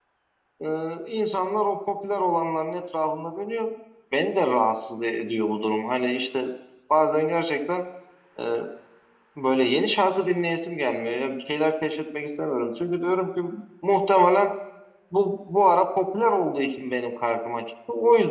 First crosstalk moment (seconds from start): none

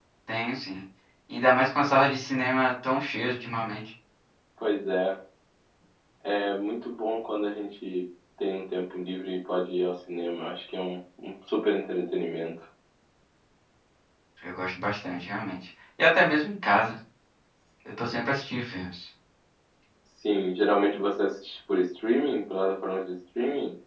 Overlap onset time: none

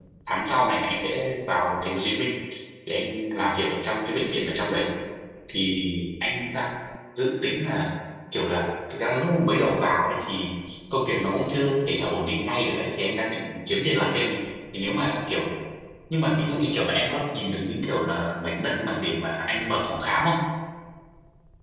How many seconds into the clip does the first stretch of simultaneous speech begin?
none

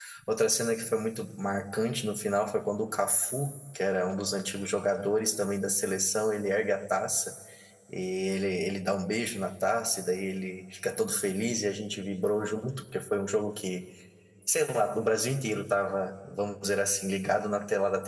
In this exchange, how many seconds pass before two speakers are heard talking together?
none

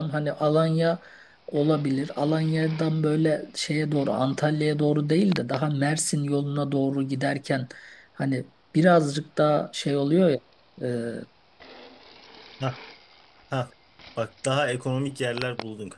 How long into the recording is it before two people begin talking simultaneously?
none

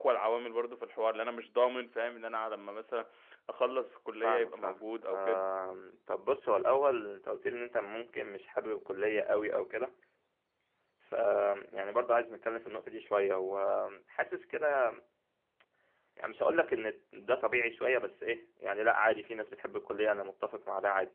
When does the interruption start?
4.2 s

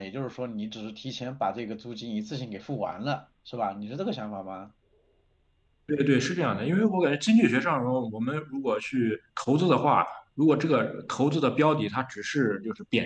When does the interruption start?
none

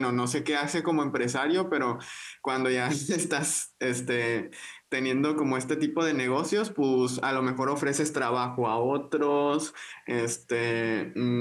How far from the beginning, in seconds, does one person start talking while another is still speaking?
none

